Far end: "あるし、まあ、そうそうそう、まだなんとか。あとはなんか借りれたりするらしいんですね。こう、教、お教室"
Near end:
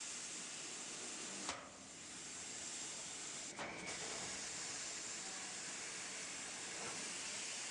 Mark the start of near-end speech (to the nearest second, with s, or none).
none